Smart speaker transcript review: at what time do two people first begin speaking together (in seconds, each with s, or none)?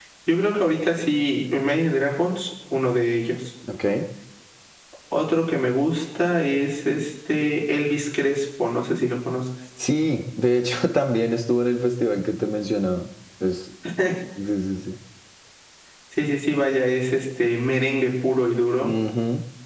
none